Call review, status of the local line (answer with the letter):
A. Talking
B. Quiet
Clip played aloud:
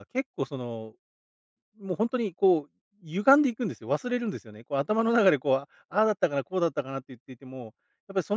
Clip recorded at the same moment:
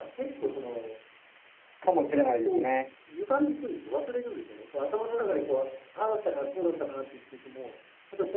A